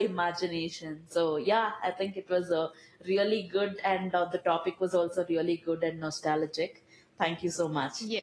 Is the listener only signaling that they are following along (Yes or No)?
No